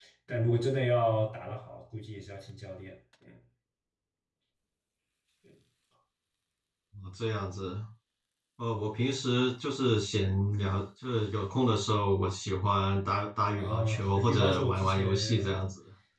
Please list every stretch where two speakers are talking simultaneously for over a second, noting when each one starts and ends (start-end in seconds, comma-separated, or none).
13.6-15.7